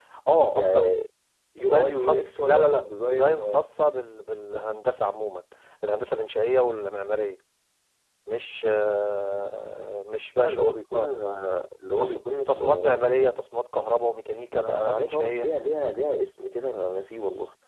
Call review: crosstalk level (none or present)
present